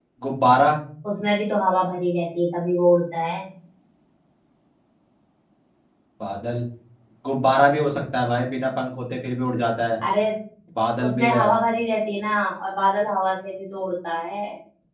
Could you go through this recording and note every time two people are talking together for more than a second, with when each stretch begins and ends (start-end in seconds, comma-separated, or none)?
none